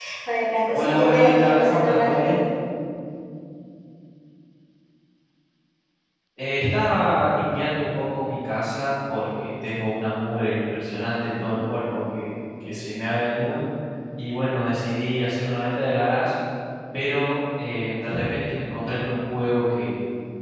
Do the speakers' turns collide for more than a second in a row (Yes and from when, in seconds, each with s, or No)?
Yes, from 0.7 s